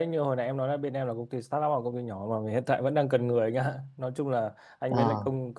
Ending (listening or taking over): listening